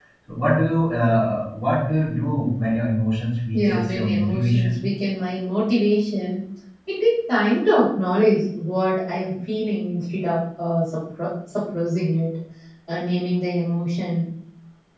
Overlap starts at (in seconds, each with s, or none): 3.5 s